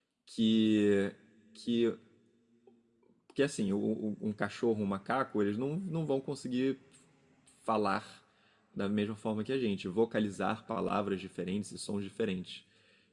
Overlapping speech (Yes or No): No